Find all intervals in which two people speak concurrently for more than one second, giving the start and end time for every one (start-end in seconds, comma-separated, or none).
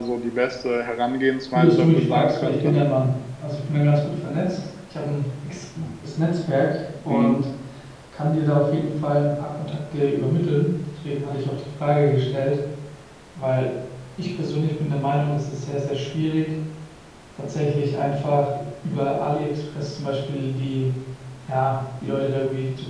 1.5-2.7